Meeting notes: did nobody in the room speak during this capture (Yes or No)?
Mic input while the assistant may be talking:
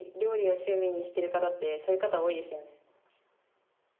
Yes